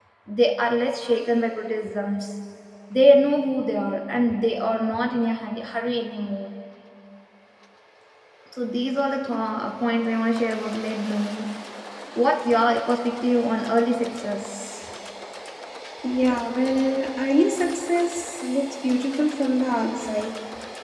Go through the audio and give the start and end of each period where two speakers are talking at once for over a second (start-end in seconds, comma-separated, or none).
none